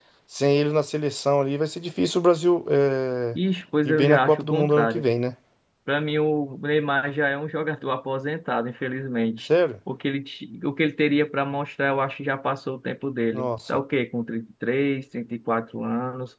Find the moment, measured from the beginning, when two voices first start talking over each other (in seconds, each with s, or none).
3.8 s